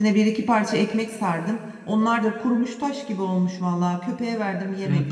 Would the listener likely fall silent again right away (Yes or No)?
No